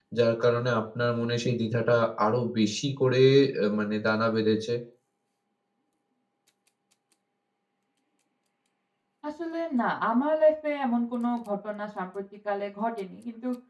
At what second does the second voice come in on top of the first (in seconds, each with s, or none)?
none